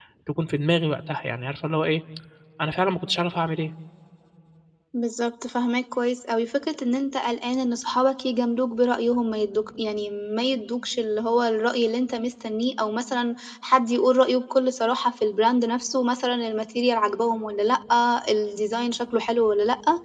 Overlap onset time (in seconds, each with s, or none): none